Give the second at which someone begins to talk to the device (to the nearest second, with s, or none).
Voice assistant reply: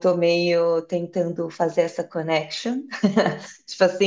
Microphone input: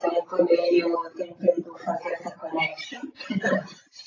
none